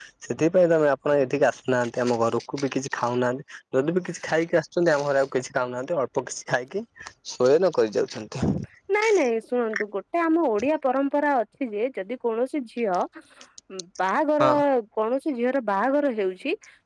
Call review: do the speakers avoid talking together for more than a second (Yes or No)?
Yes